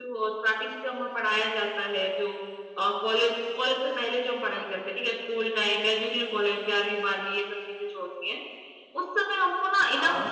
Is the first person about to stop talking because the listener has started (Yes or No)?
No